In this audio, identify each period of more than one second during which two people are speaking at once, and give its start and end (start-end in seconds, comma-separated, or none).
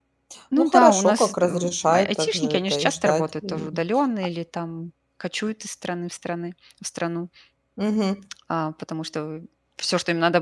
0.6-3.7